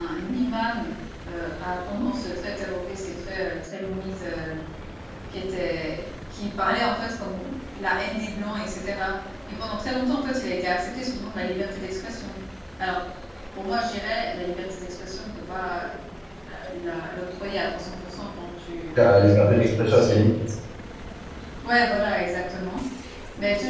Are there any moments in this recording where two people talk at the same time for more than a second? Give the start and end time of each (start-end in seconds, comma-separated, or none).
18.9-20.3